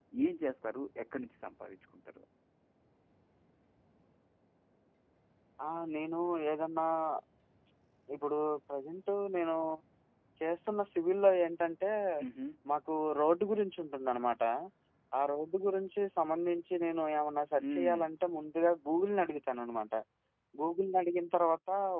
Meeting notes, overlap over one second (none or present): none